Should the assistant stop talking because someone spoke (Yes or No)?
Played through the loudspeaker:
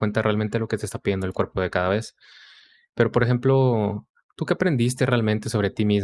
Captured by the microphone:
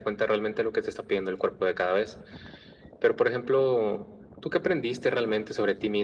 No